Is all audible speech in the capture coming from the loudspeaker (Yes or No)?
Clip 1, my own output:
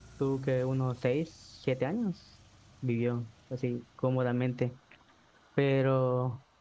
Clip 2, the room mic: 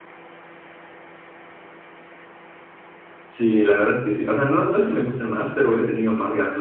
No